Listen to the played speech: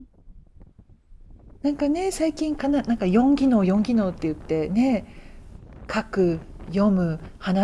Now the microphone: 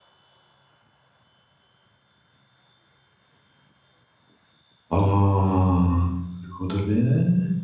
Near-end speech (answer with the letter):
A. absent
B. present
B